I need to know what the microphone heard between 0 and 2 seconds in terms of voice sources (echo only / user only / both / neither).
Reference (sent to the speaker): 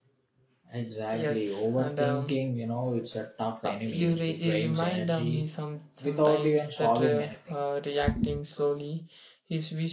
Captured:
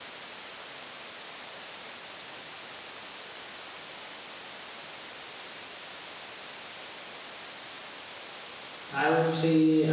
neither